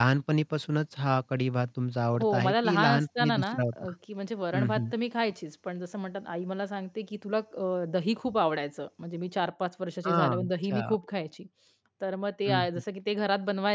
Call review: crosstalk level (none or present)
present